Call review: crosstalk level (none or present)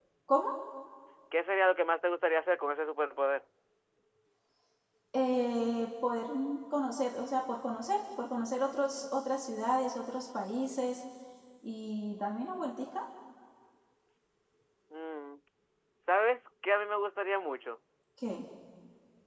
none